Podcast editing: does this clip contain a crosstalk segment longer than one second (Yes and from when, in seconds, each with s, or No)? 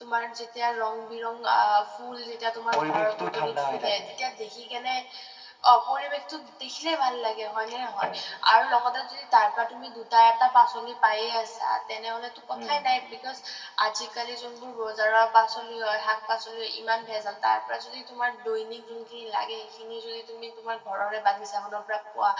Yes, from 2.7 s